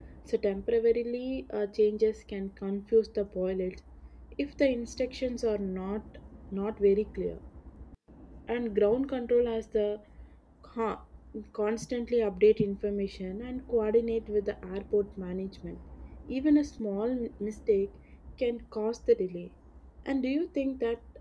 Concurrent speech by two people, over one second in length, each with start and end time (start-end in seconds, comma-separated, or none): none